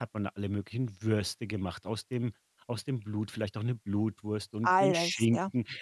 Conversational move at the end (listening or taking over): listening